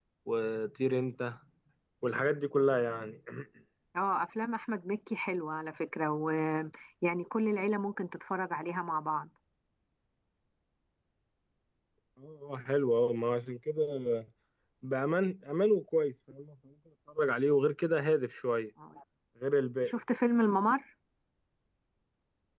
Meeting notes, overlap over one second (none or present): none